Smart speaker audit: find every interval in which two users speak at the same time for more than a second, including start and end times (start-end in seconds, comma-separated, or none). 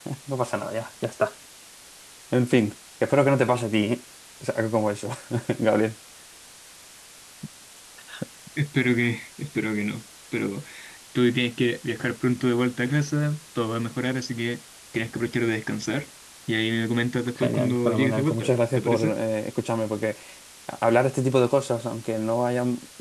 17.4-19.1